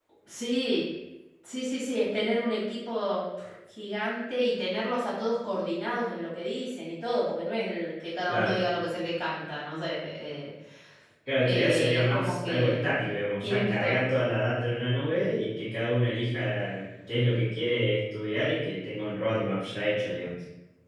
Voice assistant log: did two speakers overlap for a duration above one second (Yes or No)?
Yes